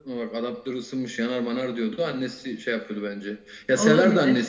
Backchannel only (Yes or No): Yes